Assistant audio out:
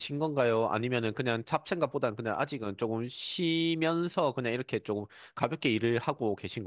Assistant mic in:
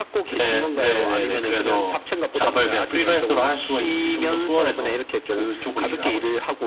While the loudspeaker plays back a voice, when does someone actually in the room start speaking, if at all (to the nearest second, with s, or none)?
0 s